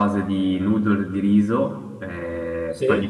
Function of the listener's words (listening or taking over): listening